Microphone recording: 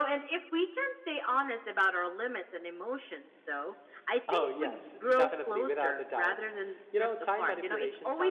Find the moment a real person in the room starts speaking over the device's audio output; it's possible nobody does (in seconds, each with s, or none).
4.3 s